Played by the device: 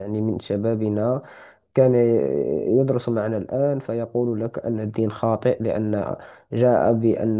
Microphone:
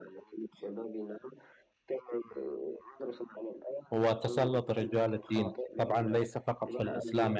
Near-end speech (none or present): present